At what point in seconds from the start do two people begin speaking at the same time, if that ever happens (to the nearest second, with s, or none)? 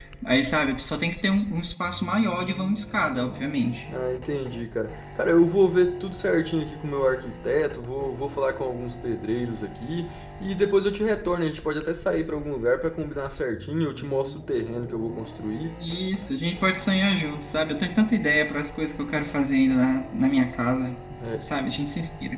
none